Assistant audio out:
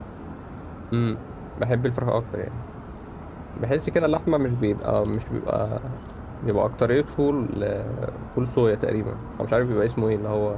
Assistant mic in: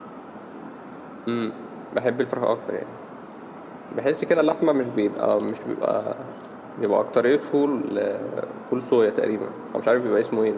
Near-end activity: none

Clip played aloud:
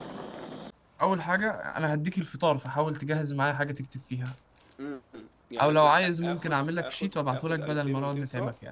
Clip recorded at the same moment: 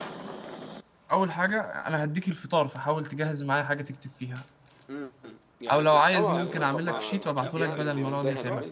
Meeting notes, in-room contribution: present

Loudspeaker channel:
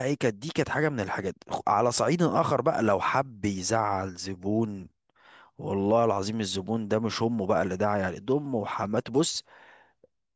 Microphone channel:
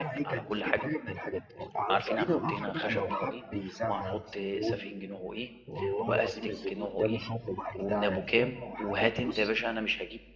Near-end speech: present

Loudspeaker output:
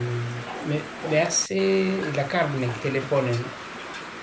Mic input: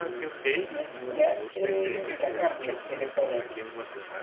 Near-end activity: present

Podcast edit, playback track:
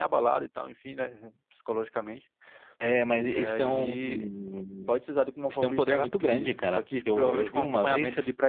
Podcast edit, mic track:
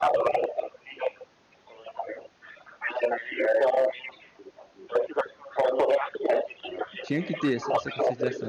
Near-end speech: present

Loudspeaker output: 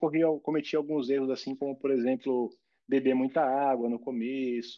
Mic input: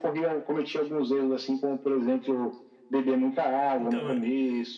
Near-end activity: present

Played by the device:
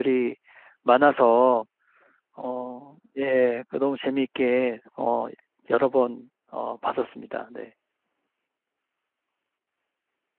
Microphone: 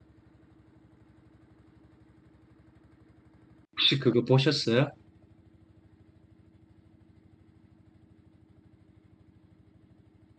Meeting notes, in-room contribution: present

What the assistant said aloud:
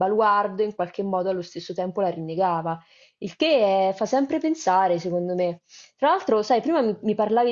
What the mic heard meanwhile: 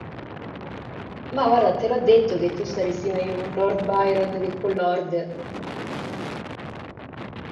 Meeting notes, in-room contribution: present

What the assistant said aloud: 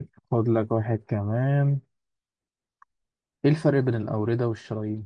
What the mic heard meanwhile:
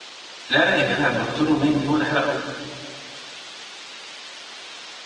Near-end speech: present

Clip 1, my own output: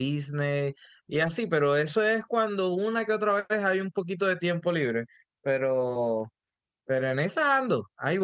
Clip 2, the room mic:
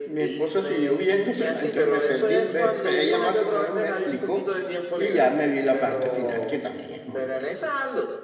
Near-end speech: present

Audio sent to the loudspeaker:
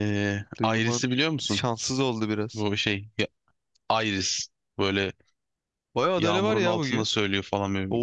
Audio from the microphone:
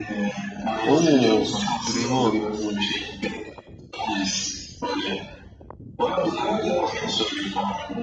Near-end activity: present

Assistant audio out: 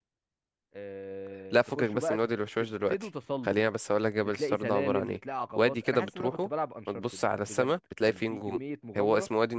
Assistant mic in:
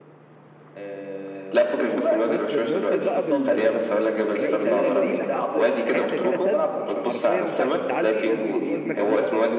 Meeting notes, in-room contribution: present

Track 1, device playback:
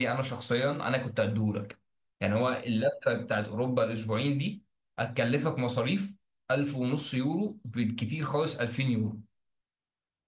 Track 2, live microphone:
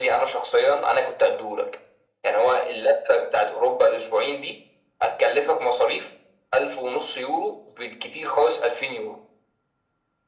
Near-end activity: none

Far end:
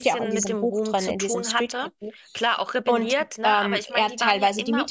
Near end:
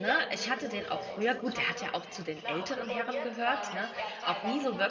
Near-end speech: present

